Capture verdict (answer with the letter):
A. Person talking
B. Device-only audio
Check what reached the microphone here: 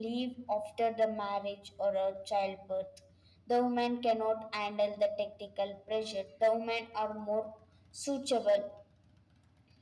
B